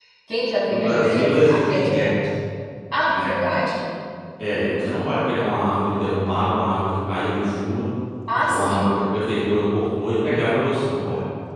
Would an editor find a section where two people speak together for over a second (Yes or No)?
Yes